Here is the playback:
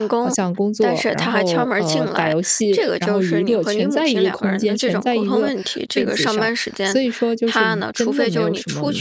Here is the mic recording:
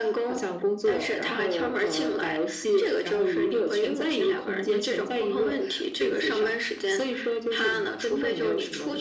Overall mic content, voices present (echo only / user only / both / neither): echo only